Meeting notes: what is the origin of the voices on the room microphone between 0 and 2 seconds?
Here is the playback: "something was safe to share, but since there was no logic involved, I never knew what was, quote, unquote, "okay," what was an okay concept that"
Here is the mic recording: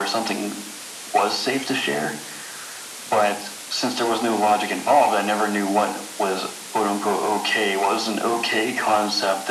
echo only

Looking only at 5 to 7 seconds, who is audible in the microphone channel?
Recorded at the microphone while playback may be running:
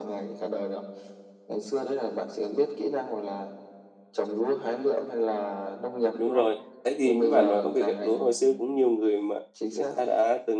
both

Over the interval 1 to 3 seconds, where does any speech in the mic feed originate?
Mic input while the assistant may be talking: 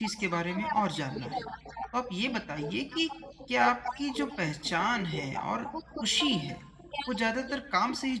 both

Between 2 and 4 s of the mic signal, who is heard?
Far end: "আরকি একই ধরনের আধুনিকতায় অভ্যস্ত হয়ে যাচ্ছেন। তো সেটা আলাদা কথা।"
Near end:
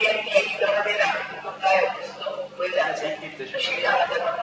both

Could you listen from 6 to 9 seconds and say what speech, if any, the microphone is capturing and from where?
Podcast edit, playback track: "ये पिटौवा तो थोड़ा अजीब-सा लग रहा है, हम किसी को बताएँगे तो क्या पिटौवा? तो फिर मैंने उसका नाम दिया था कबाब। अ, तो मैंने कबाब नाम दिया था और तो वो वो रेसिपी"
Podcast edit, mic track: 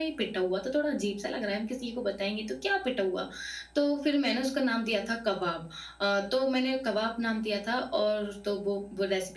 echo only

